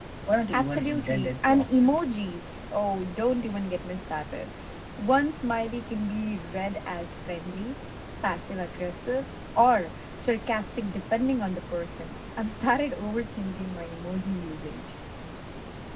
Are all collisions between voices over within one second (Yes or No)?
No